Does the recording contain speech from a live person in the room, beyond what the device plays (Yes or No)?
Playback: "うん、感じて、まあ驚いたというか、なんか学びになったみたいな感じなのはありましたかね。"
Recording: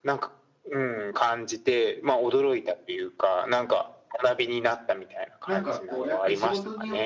Yes